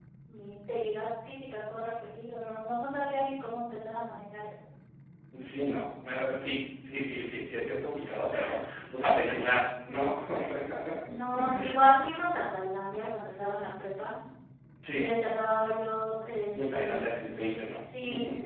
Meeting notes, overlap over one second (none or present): none